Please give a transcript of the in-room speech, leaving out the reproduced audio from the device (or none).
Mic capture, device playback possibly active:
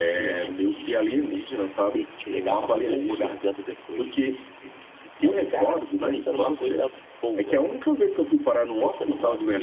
eu adoecia.